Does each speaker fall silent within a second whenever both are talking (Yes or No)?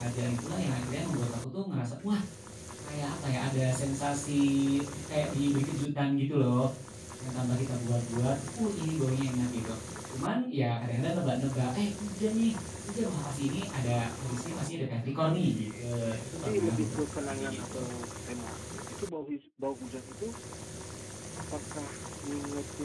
No